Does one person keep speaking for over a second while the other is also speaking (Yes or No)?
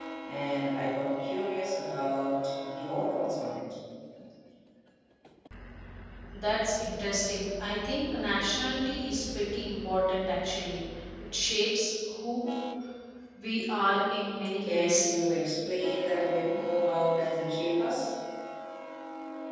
No